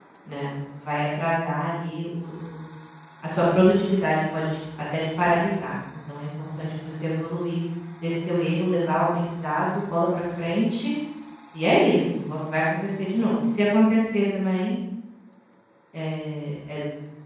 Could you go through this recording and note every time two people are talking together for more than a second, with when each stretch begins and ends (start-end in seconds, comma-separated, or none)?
none